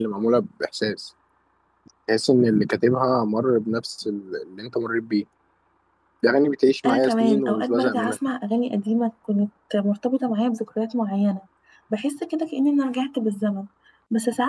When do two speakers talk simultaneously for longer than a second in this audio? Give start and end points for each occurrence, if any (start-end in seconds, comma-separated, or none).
6.8-8.2